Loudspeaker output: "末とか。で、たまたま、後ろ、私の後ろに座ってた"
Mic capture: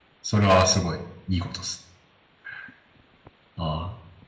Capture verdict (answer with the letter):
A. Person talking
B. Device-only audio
A